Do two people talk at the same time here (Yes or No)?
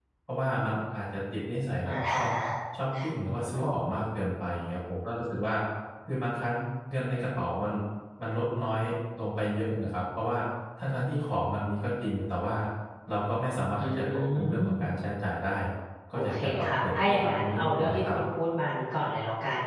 Yes